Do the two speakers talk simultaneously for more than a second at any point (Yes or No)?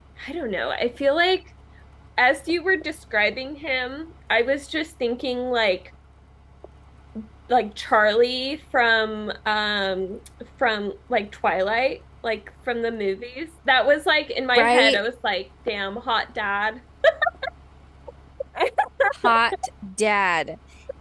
No